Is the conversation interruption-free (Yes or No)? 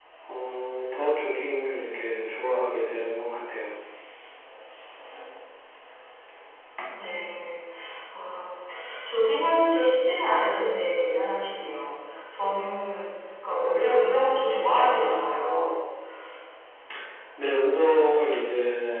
Yes